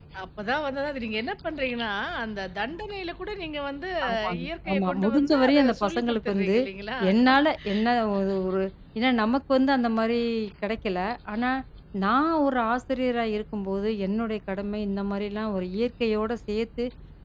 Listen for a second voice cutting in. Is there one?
Yes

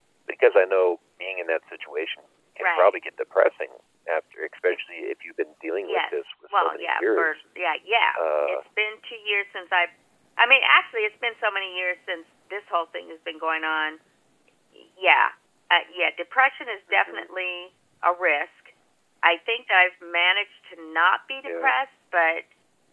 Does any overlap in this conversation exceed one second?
Yes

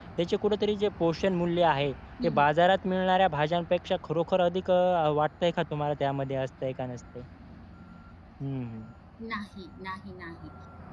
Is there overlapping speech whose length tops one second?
No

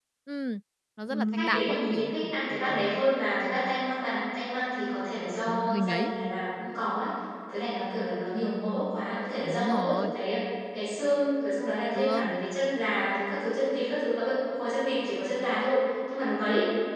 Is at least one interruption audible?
Yes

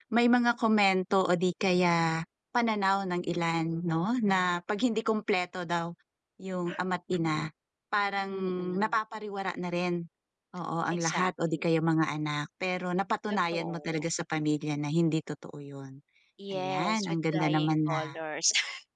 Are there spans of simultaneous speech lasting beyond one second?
Yes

